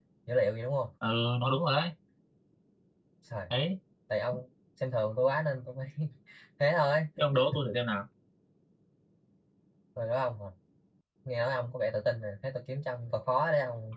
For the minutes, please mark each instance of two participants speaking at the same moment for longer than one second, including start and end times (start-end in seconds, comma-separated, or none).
none